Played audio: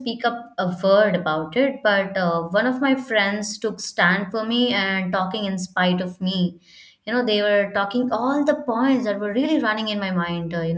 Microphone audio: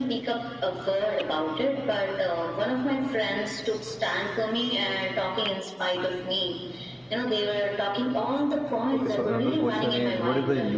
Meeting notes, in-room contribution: present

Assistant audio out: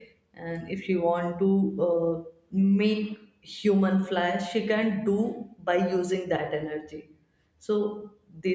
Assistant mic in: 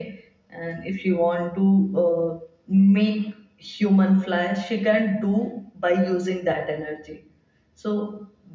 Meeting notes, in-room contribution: none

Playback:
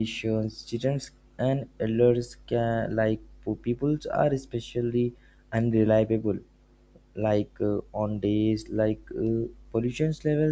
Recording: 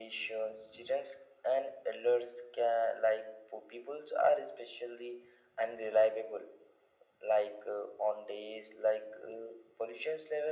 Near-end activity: none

